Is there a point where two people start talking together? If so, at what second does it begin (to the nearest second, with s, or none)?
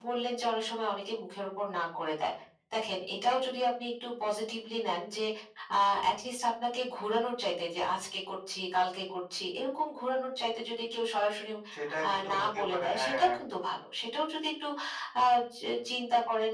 12 s